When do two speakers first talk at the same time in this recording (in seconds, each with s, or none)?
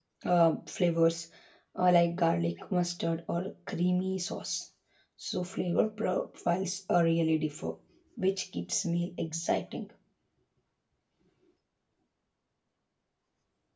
none